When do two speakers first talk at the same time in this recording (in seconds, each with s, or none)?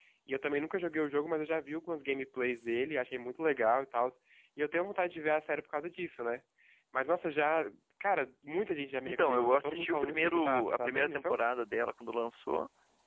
9.1 s